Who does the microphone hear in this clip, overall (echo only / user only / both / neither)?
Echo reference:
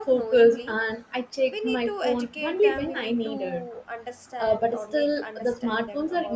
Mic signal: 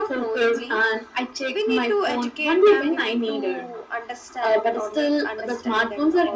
echo only